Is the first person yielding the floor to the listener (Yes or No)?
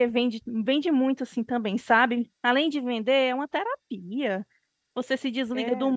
No